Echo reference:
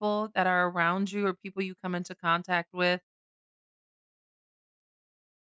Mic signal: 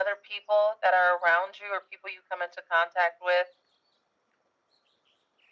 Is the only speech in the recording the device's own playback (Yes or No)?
Yes